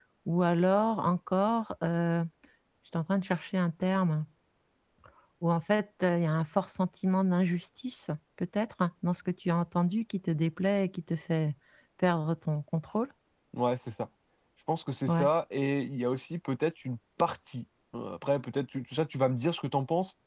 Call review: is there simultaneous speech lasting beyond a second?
No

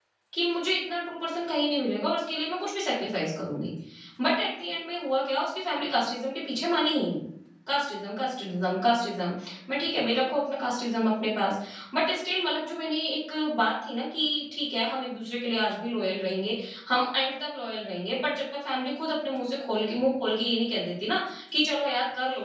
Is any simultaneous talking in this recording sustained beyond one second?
No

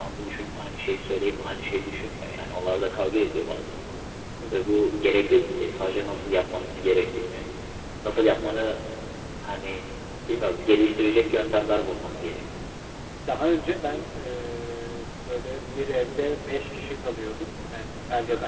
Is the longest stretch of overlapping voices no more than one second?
Yes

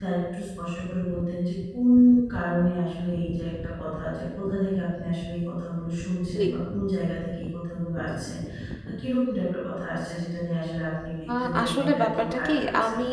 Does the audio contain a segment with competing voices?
Yes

